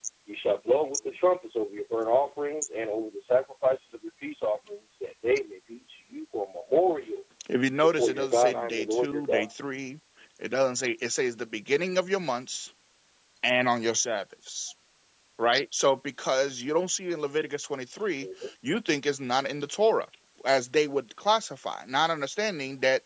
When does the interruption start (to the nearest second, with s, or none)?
8 s